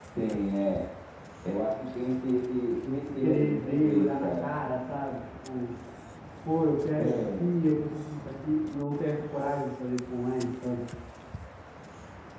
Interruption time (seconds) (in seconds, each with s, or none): 3.2 s